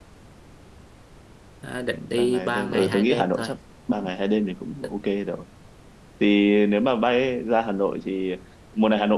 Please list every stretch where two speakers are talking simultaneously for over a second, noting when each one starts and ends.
2.1-3.5

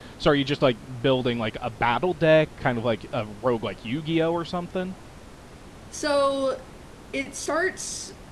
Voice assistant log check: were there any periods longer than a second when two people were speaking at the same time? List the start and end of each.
none

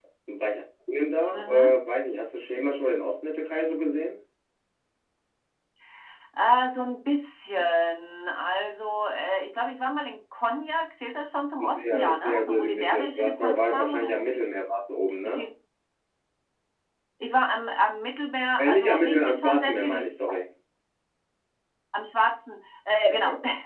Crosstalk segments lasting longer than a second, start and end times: 11.6-14.2, 18.6-20.0

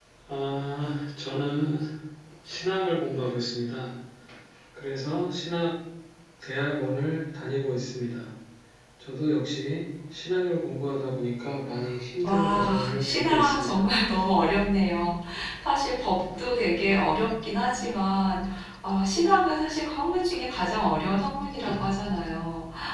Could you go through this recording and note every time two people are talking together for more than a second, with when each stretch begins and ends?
12.2-13.8

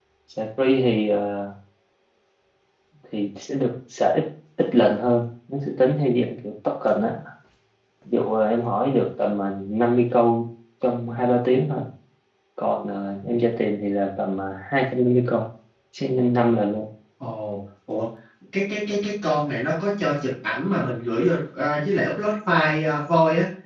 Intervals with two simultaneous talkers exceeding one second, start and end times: none

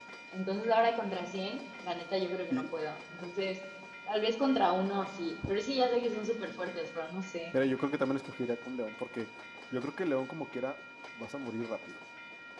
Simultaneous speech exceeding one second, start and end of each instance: none

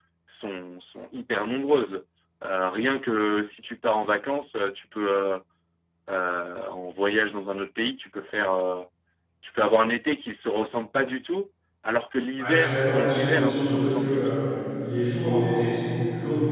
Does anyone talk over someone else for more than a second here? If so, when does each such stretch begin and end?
12.4-14.4

